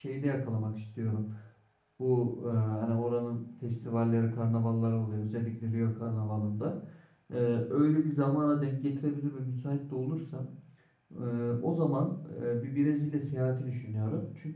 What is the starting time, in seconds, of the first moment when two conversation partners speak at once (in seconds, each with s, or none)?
none